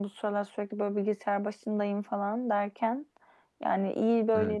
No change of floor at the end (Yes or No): Yes